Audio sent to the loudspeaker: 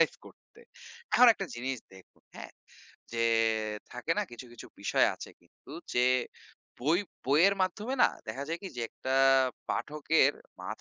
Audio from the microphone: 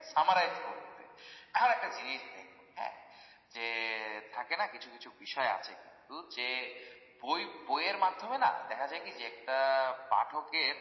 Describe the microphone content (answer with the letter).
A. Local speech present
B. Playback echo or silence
B